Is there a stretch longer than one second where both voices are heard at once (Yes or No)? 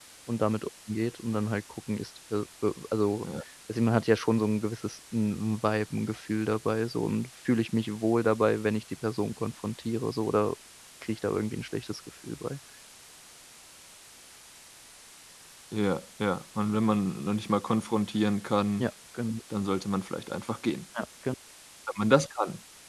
No